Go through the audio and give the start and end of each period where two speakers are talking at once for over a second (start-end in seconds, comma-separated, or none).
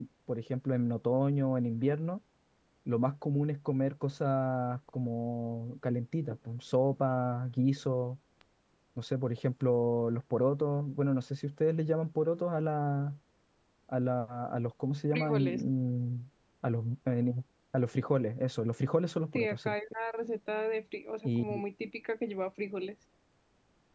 none